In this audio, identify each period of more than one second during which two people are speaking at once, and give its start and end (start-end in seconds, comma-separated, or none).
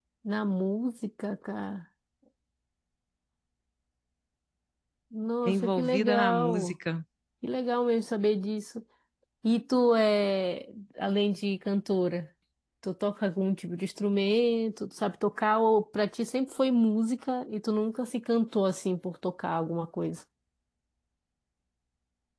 5.5-6.7